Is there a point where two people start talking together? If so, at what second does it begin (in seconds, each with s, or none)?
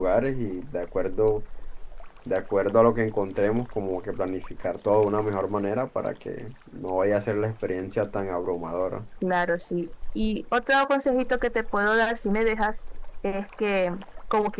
none